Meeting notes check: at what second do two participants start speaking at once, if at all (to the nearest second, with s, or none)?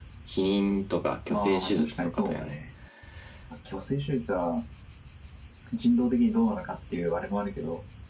1 s